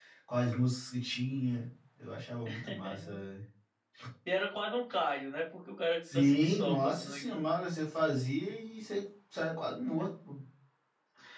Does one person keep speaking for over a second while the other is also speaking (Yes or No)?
Yes